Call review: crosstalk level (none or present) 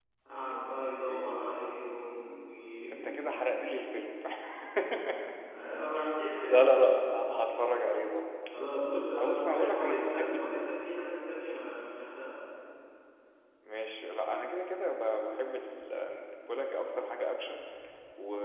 present